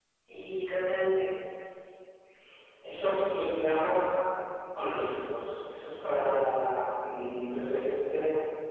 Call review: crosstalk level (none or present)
none